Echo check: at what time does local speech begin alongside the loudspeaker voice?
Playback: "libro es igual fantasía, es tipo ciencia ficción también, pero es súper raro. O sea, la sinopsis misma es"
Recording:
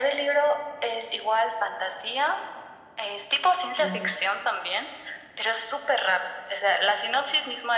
3.8 s

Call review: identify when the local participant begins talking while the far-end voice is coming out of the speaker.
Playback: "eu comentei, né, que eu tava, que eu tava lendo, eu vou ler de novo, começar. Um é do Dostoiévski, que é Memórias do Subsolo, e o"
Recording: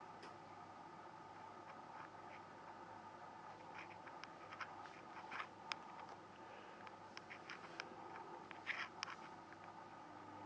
none

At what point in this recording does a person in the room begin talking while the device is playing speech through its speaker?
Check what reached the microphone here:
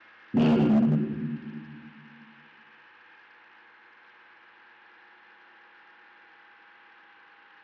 0.3 s

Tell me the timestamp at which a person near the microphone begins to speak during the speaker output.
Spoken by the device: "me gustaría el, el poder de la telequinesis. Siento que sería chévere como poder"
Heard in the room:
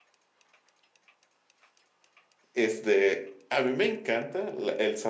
2.5 s

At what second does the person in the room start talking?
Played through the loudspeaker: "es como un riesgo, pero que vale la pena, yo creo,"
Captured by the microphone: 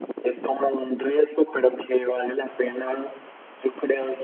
none

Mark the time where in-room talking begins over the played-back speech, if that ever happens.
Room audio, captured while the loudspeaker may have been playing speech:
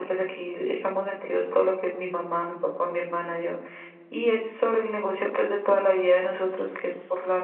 none

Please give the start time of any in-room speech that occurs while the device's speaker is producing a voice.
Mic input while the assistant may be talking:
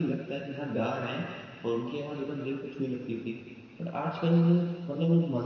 none

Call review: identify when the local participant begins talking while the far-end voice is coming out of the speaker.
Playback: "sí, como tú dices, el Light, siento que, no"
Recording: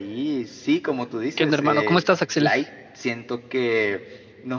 1.3 s

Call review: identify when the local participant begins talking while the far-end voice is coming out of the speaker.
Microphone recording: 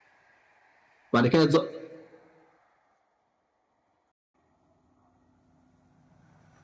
1.1 s

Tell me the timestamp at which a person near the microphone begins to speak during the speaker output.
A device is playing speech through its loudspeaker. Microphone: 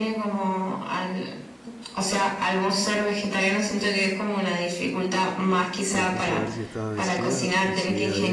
5.9 s

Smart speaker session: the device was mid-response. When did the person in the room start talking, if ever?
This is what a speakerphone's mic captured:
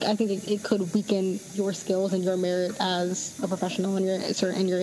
none

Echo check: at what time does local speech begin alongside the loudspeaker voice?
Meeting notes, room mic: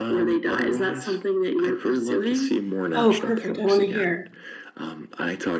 2.9 s

